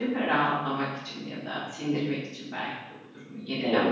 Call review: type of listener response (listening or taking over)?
taking over